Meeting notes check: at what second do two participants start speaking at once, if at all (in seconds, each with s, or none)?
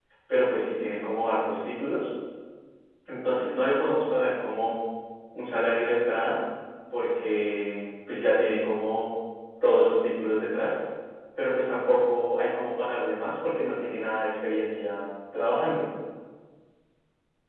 none